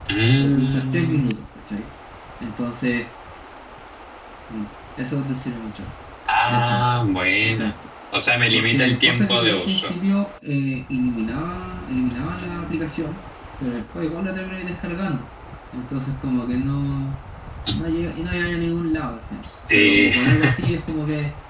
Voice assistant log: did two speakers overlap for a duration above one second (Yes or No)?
Yes